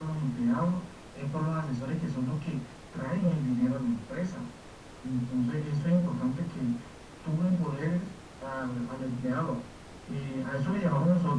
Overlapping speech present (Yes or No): No